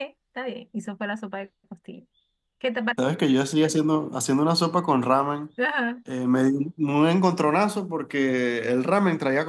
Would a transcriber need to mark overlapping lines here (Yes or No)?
No